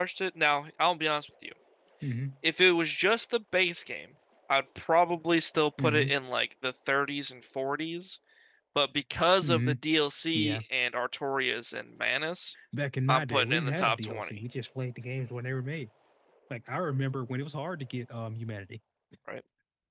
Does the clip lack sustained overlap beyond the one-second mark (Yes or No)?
No